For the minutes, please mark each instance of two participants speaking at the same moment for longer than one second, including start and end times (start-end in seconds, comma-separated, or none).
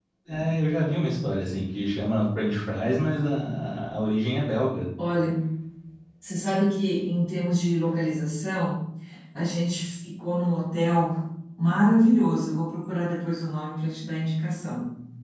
none